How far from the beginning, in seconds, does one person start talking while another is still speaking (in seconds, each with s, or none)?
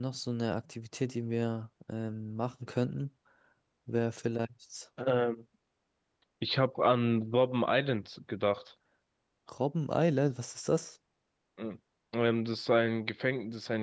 none